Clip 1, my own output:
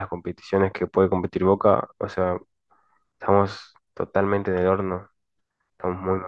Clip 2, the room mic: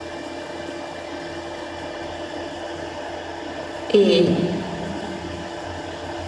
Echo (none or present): none